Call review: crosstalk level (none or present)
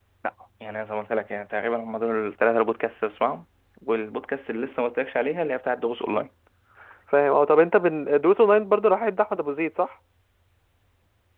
none